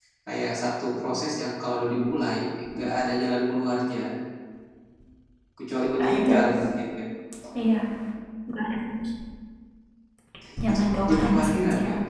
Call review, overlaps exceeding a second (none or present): present